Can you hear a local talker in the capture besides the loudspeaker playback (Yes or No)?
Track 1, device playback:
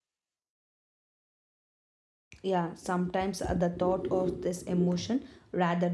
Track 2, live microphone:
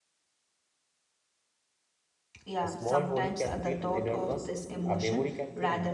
Yes